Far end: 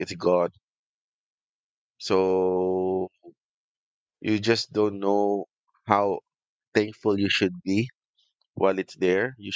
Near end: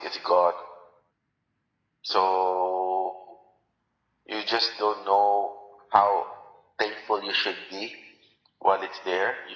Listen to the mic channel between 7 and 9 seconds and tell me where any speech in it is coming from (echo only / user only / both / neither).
echo only